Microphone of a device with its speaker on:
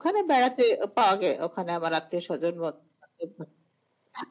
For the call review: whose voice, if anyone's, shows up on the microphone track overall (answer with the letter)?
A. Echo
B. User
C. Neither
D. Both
A